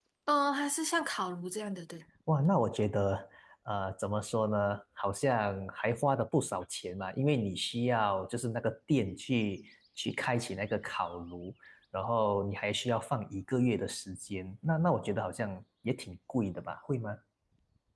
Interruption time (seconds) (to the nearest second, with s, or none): none